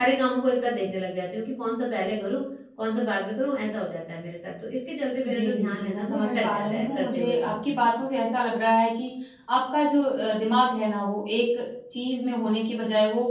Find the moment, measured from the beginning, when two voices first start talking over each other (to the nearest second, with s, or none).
5 s